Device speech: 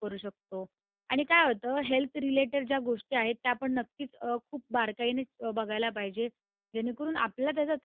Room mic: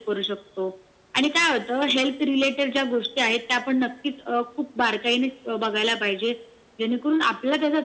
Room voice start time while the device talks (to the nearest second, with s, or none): none